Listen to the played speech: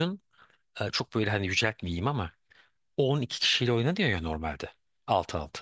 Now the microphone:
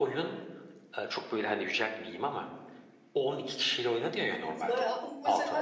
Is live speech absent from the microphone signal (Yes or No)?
No